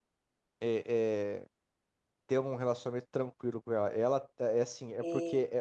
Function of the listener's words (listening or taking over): listening